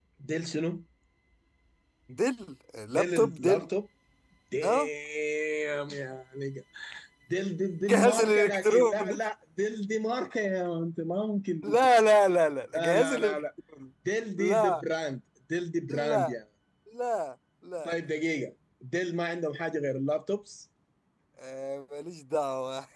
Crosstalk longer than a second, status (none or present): present